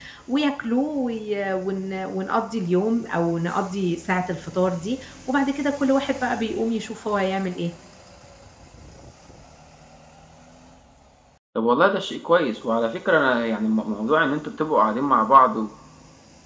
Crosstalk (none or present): none